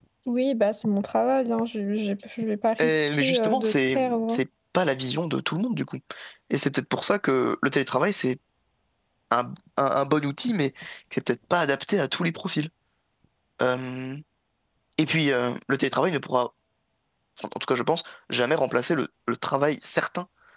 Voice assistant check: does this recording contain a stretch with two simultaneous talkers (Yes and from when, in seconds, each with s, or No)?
Yes, from 2.8 s